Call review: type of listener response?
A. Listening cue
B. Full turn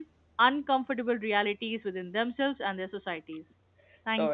B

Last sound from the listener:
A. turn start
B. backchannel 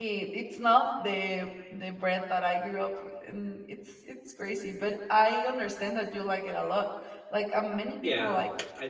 A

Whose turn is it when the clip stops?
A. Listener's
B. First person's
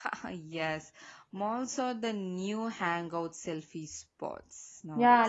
A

